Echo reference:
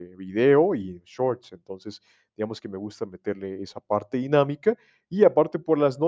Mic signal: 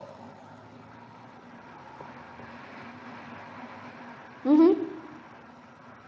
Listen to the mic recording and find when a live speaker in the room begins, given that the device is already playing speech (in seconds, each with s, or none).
4.4 s